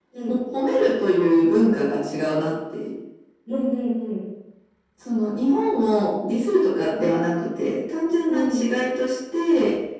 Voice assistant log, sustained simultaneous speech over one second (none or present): none